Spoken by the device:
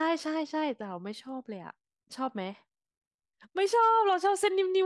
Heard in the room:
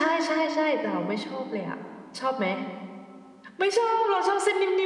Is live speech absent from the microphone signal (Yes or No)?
Yes